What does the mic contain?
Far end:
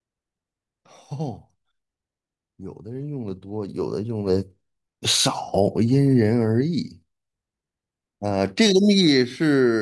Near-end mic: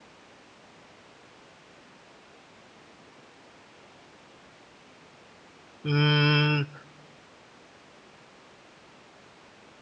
user only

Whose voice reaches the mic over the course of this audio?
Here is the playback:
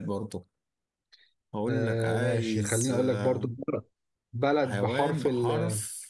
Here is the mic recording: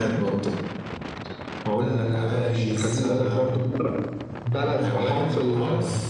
echo only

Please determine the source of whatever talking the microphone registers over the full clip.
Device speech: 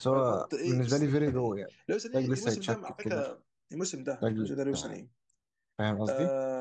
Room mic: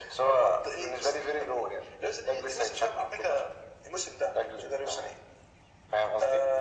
echo only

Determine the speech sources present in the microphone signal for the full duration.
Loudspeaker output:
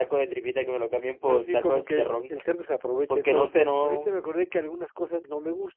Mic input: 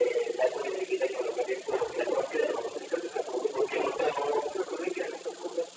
echo only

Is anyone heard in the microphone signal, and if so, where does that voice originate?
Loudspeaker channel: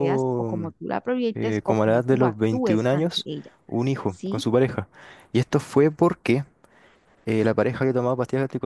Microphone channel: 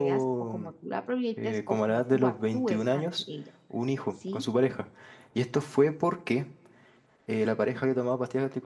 echo only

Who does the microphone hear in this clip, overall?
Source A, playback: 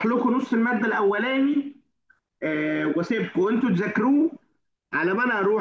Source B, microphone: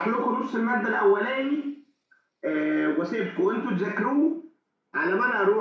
echo only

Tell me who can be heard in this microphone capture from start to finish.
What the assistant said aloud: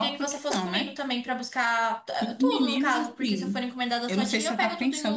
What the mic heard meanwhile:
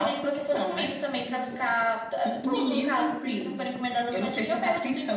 echo only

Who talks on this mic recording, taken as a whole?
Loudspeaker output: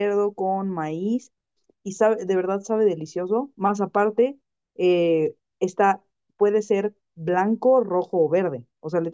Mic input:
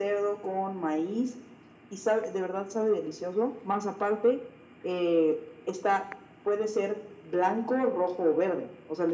echo only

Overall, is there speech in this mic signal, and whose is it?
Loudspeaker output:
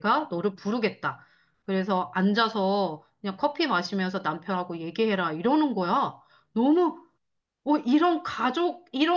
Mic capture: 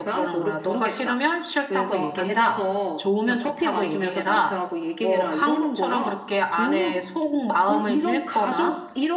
both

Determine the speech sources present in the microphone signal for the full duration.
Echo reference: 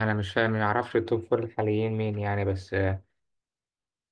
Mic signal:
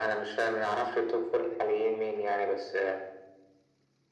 echo only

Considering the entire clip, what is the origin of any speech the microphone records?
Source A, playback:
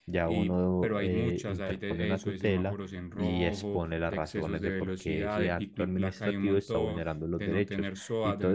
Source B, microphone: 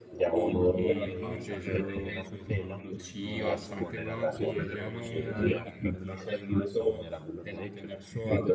both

